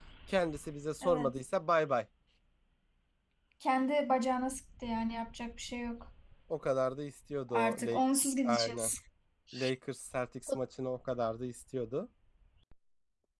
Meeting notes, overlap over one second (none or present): none